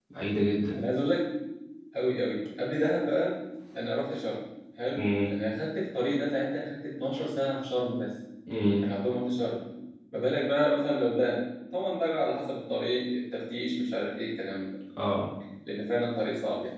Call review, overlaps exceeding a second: none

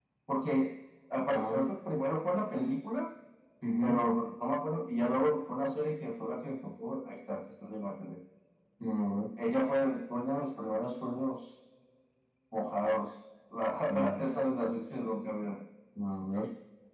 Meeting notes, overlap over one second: none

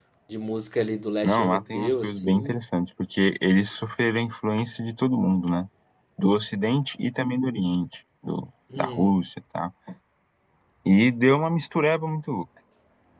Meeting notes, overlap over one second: present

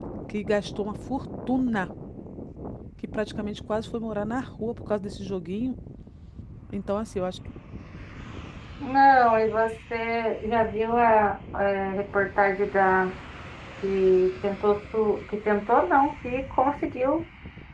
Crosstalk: none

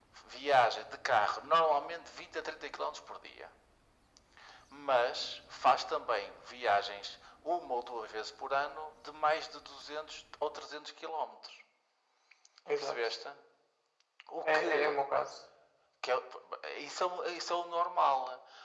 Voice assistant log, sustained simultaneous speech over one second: none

